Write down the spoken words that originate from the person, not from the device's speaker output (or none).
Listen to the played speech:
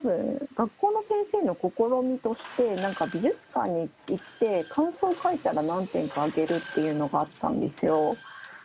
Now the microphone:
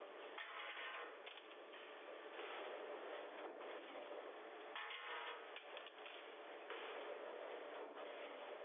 none